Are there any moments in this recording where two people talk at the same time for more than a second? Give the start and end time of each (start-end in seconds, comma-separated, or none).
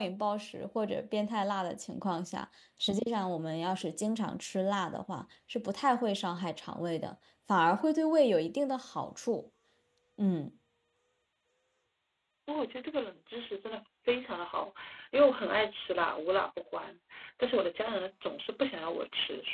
none